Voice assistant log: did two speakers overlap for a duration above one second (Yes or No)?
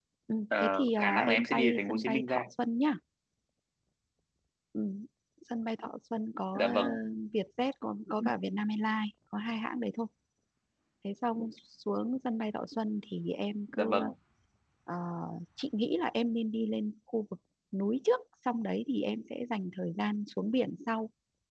Yes